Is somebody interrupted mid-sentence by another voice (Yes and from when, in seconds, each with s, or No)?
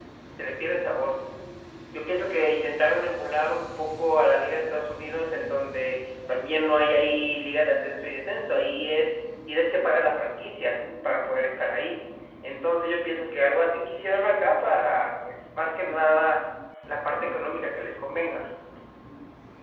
No